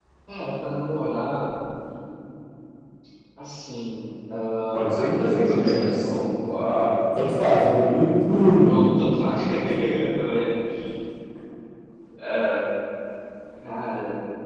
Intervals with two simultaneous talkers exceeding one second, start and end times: 4.7-6.1

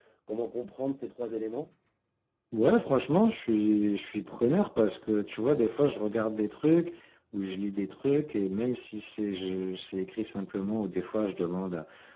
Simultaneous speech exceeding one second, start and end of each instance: none

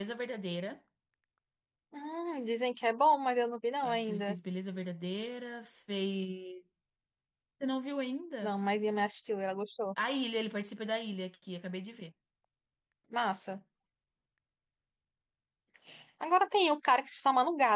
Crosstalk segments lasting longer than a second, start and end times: none

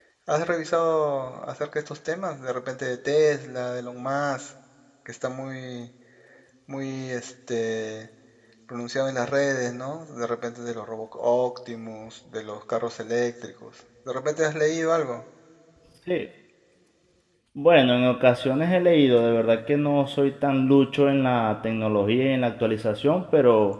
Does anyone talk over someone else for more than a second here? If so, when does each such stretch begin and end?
none

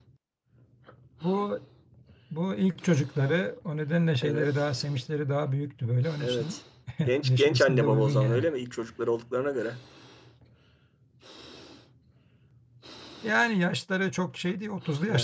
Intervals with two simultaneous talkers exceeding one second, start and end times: 7.2-8.5

